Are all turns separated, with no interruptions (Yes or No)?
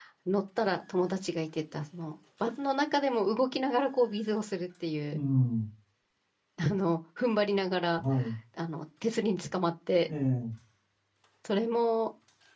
Yes